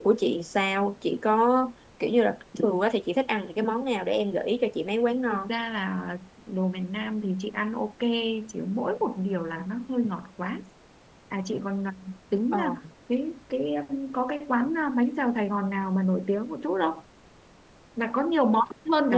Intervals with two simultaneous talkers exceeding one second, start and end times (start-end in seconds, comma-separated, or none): none